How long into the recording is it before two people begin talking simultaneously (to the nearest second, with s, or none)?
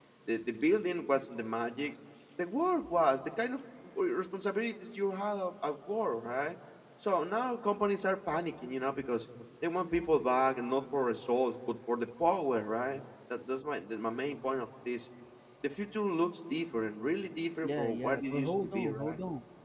18 s